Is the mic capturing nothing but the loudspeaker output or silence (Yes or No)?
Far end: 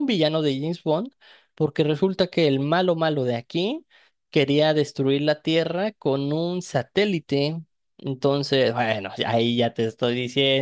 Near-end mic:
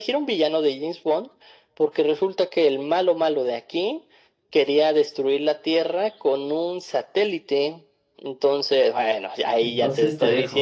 No